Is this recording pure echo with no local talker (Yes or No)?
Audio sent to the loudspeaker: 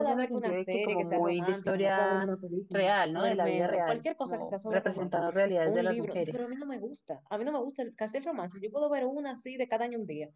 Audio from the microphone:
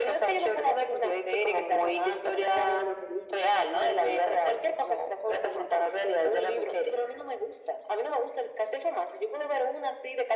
Yes